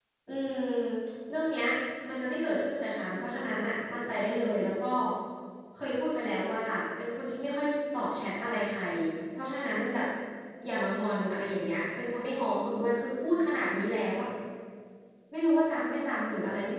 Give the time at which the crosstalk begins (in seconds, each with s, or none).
none